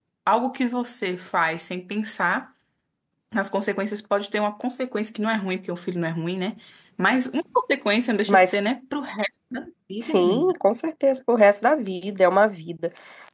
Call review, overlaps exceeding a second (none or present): none